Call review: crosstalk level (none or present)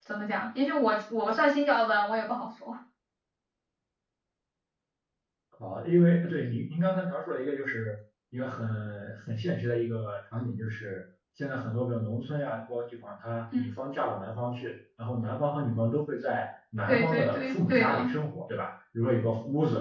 present